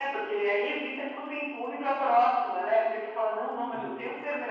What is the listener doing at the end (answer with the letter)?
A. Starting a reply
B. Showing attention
B